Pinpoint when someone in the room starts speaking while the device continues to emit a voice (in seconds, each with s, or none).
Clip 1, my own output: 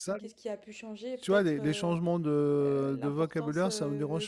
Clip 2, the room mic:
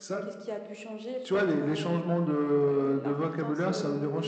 none